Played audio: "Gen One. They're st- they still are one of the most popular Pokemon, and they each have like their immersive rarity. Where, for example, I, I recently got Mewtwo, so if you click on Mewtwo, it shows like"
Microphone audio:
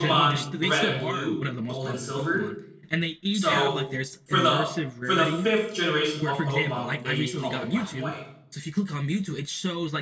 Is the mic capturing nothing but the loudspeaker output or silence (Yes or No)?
No